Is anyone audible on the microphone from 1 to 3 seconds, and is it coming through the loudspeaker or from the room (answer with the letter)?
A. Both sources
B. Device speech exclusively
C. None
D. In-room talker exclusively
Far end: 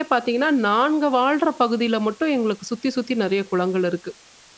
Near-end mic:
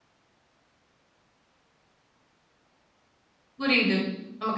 C